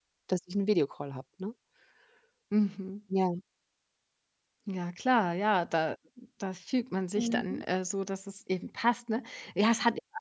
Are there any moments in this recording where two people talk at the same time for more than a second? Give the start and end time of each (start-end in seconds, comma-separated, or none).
none